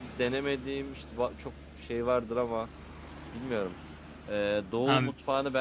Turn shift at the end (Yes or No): No